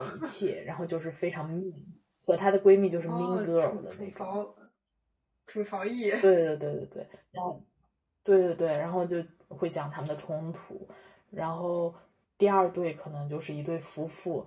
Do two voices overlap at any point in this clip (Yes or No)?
Yes